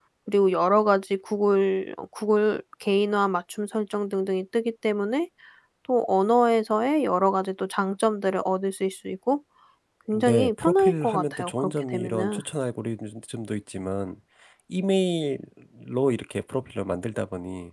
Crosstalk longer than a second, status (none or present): present